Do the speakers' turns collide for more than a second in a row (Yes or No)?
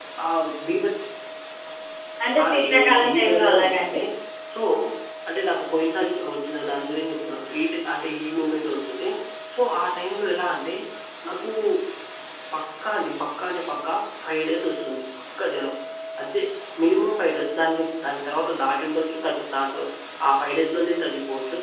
Yes